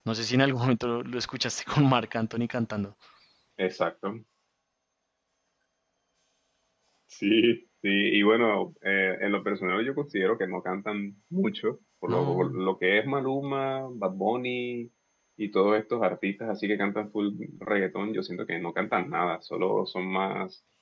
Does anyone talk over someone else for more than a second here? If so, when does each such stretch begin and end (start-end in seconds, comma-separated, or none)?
none